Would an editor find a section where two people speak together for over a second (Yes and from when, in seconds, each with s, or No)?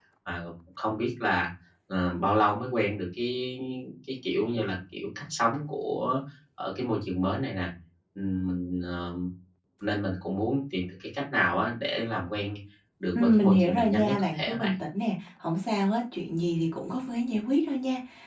Yes, from 13.2 s